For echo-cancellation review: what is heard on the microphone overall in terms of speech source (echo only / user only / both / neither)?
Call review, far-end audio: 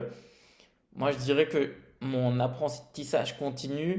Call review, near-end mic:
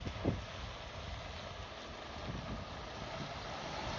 neither